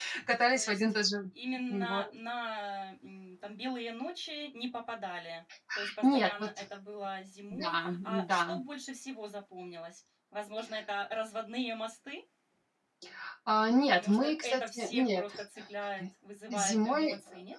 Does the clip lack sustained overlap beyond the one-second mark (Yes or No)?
No